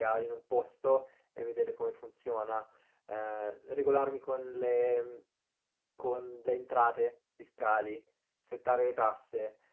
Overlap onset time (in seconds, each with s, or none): none